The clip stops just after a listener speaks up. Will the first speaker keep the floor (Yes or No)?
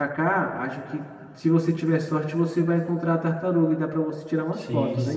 No